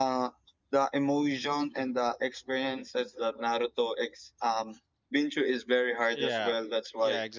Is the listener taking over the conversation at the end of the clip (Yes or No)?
Yes